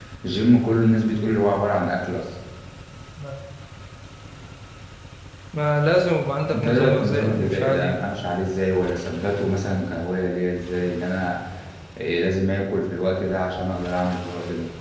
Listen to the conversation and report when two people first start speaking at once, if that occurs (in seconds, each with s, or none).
6.5 s